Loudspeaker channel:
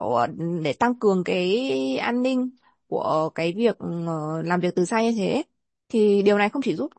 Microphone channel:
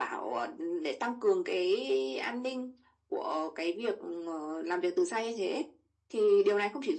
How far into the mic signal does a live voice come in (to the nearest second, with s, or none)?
none